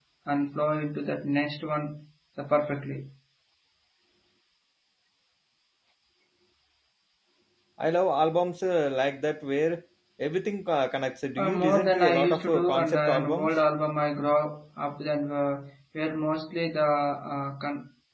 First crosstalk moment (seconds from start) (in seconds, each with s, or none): 11.4 s